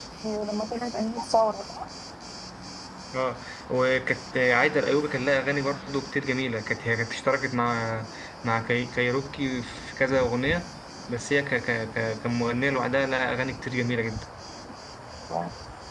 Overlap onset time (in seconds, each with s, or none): none